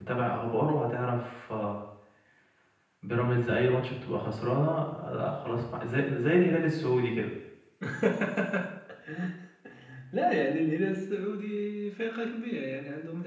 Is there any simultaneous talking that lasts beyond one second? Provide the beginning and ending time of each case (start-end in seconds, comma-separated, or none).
none